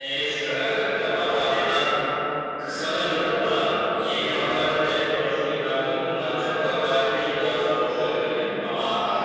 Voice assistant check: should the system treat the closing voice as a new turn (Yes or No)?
Yes